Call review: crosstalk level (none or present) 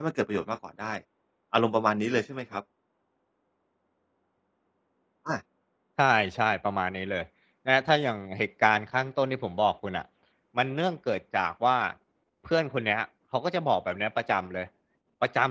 none